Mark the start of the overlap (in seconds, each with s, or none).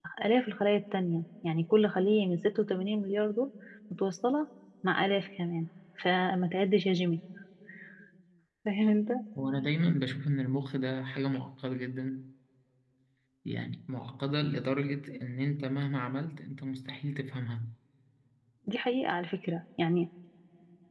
none